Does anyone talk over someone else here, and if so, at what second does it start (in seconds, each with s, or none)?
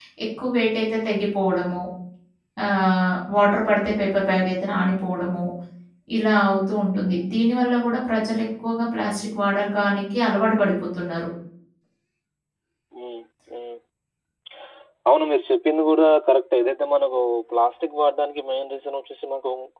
none